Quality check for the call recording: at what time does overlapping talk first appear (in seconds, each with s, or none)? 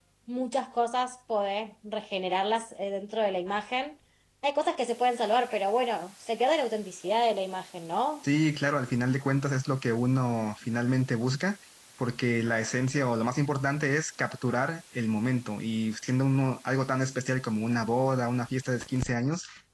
none